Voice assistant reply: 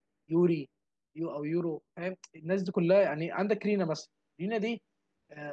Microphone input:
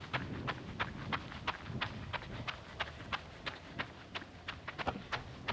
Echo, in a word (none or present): none